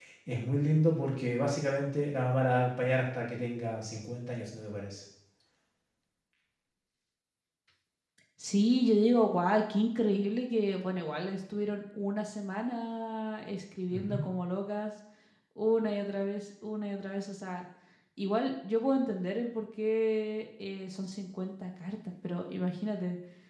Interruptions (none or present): none